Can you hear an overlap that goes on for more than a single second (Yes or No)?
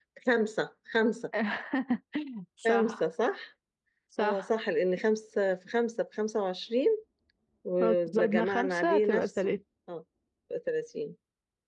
Yes